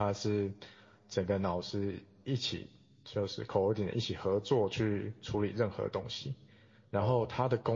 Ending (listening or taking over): listening